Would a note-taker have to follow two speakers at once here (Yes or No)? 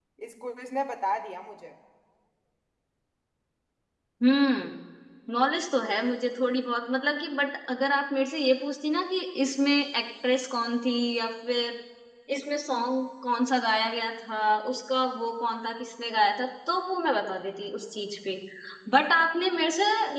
No